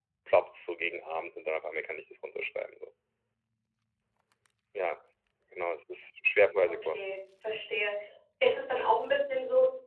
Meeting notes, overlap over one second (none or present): none